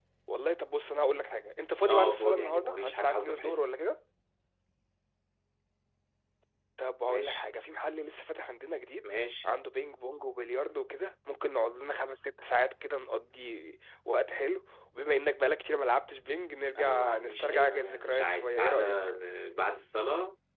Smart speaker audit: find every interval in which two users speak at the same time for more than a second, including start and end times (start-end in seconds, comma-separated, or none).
1.8-3.6, 16.8-19.0